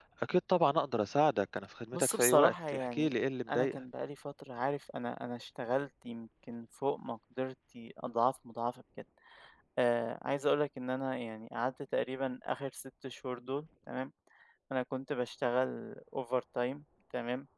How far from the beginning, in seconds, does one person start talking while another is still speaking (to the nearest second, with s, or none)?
2 s